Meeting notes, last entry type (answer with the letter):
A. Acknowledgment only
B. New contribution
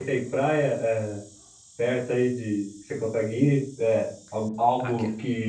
A